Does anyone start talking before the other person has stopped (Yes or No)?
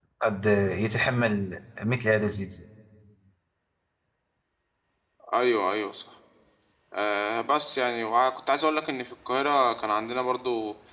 No